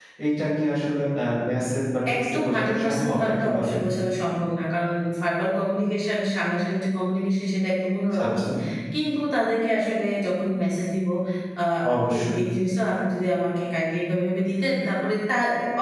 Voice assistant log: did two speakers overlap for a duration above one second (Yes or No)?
Yes